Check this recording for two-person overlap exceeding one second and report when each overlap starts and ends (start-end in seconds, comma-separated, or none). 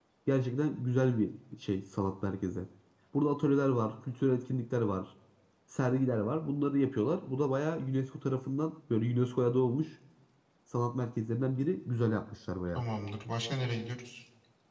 none